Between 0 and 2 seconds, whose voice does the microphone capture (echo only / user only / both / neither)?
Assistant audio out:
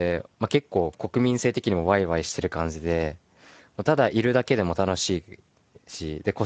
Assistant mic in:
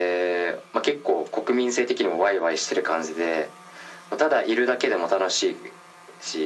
echo only